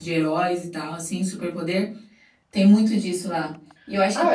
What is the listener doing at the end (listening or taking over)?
listening